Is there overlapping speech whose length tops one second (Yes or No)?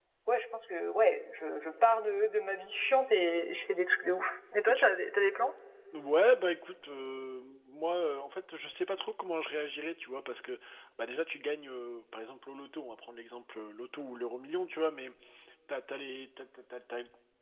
No